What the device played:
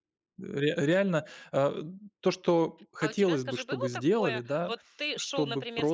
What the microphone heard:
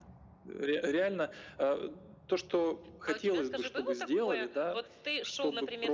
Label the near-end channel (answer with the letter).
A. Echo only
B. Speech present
A